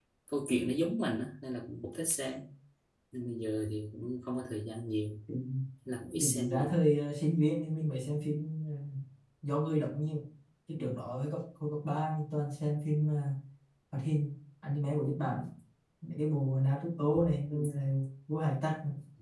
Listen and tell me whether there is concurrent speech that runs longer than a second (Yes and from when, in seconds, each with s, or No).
No